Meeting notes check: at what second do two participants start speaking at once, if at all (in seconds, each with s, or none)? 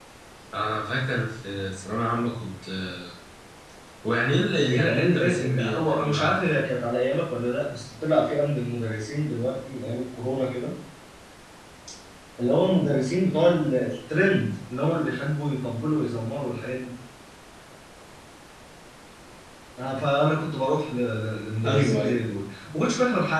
4.7 s